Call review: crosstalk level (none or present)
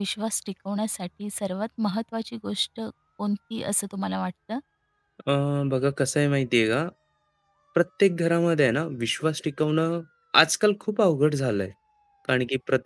none